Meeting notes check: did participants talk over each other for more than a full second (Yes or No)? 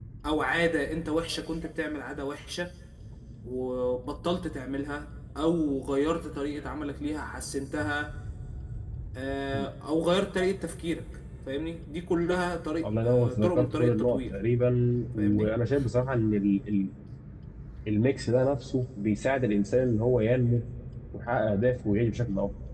Yes